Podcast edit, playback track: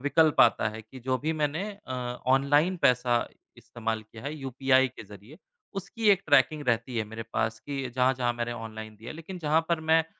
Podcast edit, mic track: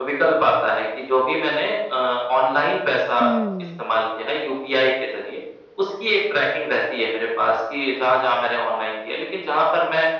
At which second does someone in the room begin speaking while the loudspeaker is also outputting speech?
3.2 s

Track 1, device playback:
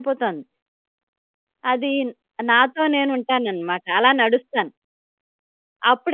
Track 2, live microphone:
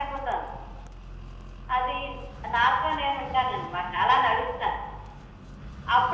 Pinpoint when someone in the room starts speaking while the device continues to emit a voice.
none

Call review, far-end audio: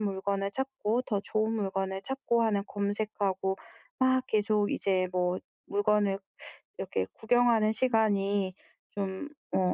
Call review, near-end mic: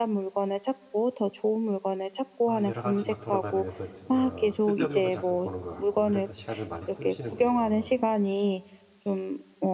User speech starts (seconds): 2.5 s

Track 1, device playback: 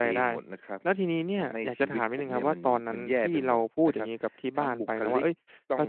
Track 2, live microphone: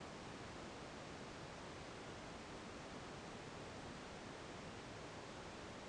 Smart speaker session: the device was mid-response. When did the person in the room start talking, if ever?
none

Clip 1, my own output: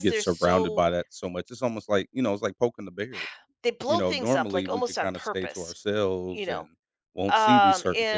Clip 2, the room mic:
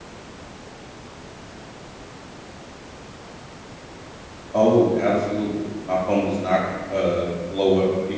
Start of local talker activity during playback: 4.5 s

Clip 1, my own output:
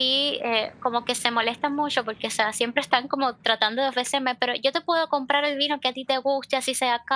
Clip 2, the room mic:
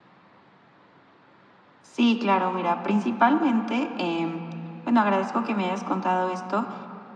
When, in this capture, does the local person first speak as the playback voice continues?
1.8 s

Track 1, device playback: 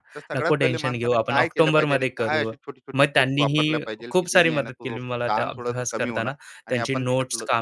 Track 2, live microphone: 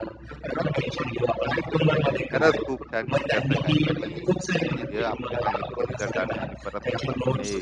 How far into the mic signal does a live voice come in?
2.0 s

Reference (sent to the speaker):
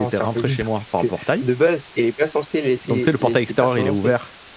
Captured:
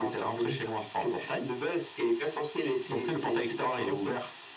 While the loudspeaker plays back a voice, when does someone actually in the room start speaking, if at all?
none

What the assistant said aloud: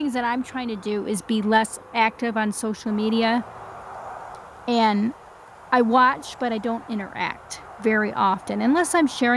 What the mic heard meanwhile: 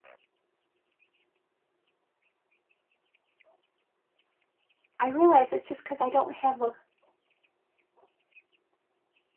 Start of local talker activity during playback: 5.0 s

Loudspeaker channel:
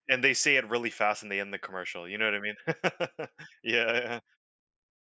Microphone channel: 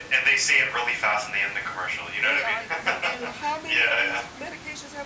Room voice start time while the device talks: 2.2 s

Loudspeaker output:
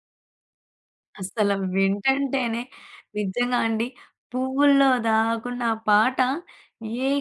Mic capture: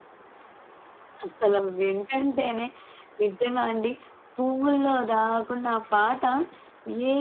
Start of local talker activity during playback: none

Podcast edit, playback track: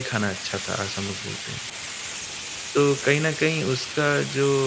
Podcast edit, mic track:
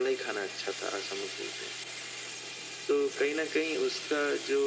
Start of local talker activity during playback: none

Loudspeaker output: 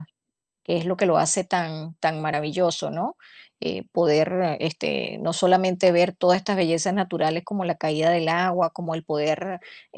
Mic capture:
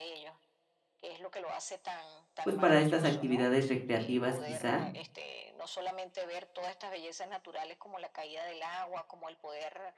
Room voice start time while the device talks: 2.4 s

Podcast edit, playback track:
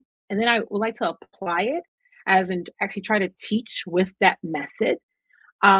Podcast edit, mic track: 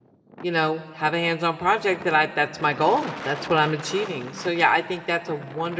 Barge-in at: 0.4 s

